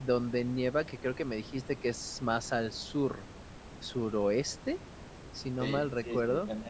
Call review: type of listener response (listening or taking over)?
taking over